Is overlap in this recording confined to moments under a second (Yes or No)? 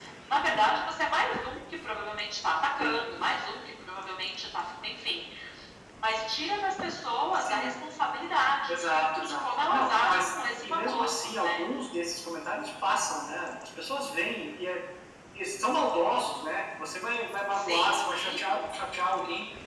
No